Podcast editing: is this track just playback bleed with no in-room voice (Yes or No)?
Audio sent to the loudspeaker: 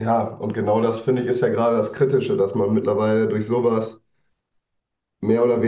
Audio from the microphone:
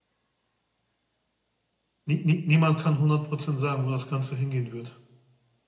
No